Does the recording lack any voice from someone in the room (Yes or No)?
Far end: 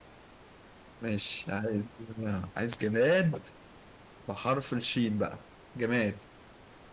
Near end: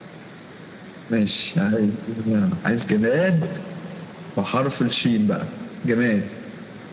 Yes